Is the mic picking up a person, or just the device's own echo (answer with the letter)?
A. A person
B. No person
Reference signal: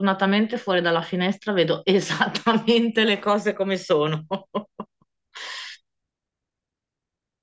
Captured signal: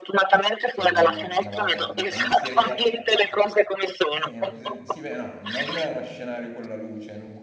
A